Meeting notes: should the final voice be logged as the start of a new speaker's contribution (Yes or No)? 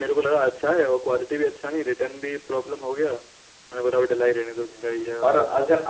Yes